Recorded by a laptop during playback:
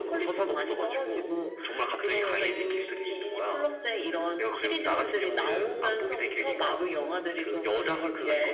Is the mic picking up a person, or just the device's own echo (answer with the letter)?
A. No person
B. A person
A